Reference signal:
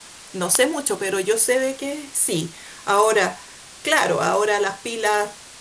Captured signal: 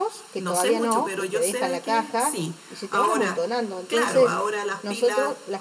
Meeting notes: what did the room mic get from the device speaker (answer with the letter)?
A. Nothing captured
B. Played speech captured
B